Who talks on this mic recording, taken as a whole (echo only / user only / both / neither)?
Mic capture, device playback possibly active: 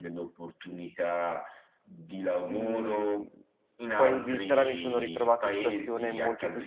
both